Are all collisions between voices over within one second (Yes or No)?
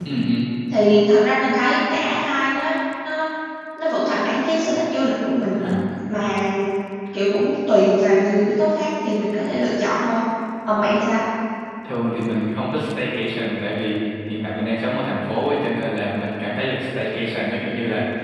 Yes